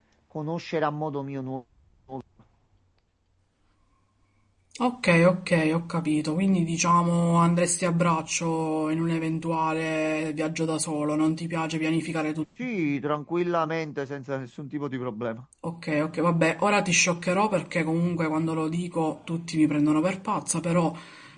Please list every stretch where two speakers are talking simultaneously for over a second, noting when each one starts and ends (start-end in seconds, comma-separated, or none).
none